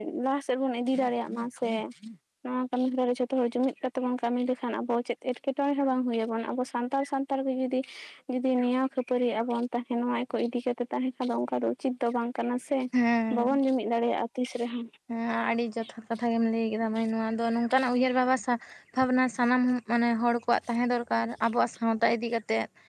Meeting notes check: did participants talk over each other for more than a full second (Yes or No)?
No